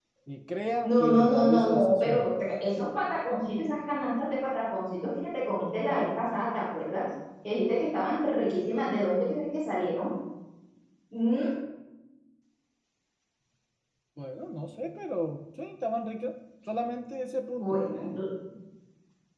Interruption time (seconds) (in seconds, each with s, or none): 0.8 s